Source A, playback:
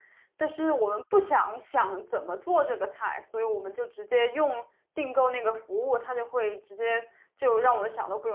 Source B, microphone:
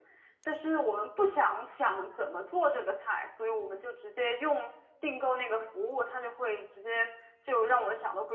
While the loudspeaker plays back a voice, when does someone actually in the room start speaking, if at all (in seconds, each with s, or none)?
none